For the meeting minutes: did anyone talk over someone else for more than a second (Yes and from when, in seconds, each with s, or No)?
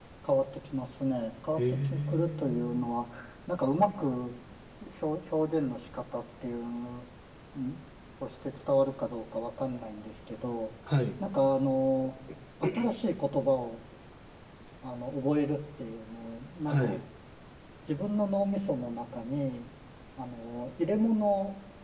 Yes, from 1.6 s